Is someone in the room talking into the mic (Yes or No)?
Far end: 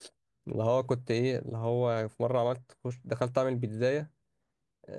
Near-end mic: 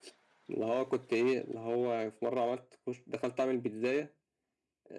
No